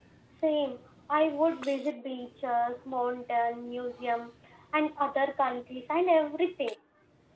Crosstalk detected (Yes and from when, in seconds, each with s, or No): No